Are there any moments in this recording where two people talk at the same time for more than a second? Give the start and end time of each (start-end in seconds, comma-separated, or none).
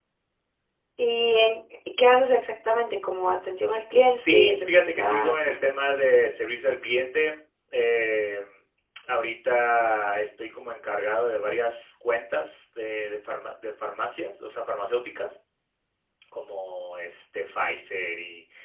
4.1-5.3